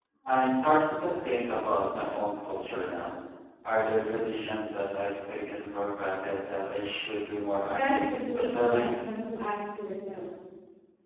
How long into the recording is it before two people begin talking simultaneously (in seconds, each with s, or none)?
7.6 s